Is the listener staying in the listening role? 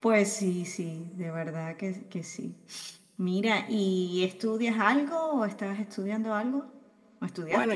No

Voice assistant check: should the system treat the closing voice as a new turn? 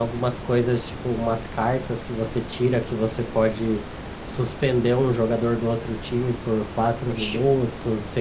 No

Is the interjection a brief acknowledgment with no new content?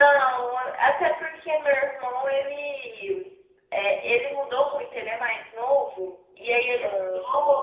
Yes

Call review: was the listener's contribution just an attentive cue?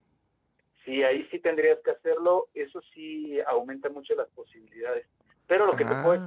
Yes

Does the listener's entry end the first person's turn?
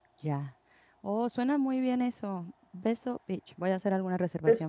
Yes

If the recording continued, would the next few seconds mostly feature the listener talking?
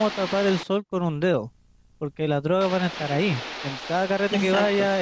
No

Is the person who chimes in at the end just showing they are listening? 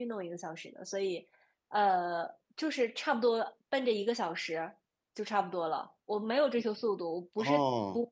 Yes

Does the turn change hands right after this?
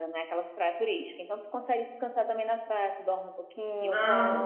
Yes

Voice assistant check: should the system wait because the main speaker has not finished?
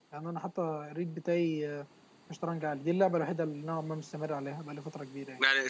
No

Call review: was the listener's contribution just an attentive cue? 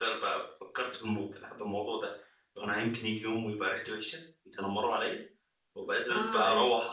Yes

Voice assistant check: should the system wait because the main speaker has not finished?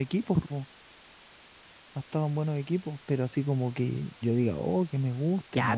No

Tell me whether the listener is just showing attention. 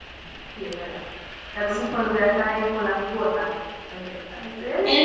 No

